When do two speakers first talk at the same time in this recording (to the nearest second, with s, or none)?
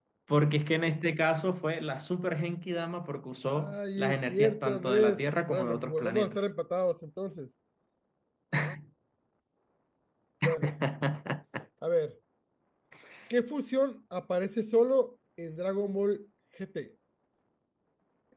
3 s